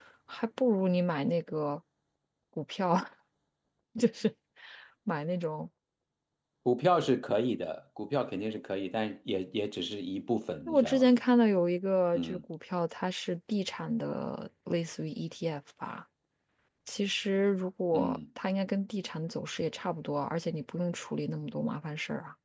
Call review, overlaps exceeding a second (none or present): none